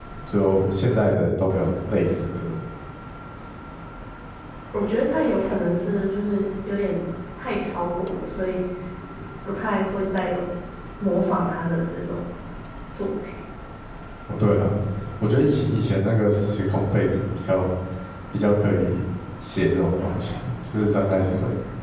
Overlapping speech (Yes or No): No